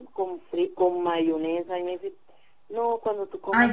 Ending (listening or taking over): taking over